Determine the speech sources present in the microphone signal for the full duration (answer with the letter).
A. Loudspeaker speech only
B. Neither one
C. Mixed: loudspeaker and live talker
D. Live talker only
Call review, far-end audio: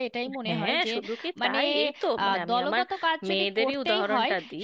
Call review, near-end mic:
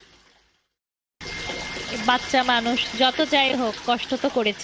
D